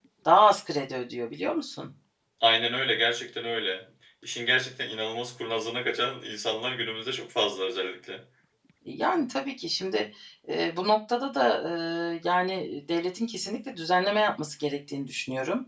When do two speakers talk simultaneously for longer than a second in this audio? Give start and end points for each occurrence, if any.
none

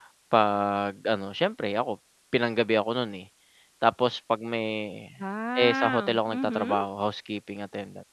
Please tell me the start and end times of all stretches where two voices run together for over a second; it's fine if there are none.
5.6-6.8

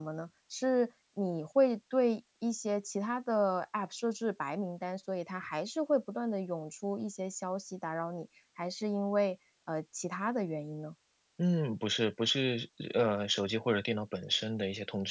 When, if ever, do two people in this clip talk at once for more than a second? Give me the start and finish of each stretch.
none

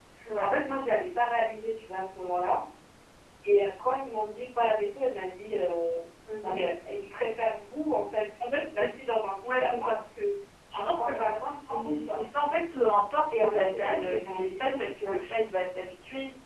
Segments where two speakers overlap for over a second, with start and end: 10.7-12.2, 13.4-15.2

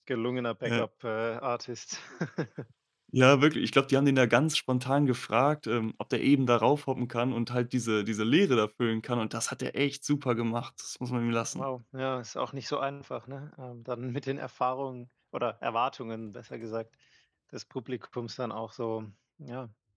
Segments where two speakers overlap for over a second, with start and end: none

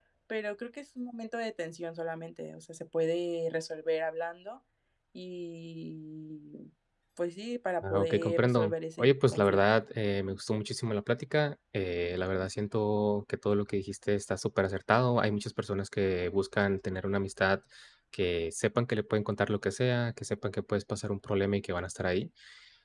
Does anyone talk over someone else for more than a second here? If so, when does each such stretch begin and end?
7.8-9.8

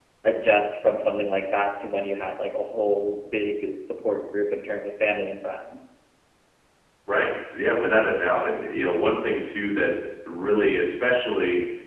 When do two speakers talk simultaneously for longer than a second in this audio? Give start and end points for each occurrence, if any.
none

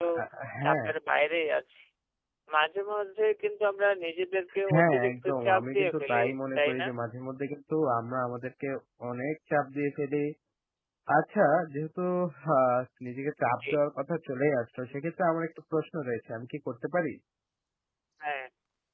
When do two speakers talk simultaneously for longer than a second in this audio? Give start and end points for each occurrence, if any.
4.7-6.2

